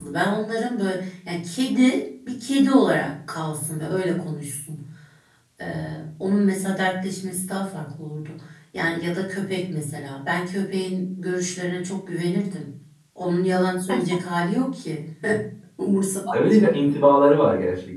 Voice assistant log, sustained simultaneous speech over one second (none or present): none